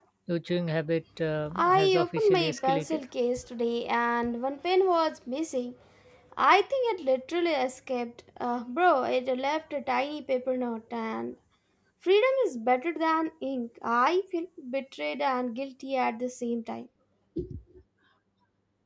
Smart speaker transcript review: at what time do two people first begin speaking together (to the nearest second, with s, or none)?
1 s